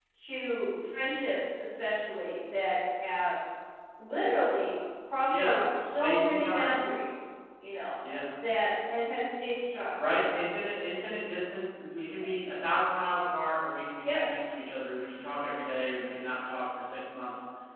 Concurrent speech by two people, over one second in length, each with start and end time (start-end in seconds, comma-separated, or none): 5.3-6.8